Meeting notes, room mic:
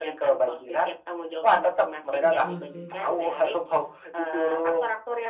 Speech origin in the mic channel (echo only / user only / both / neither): both